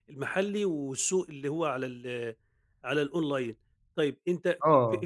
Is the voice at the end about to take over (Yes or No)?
No